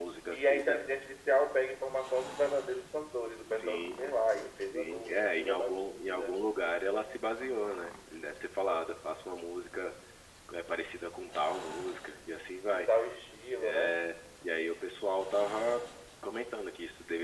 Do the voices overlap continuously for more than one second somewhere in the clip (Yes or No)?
Yes